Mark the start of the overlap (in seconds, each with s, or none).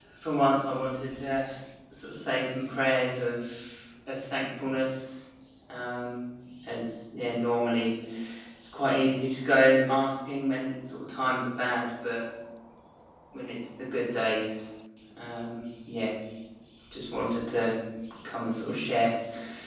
none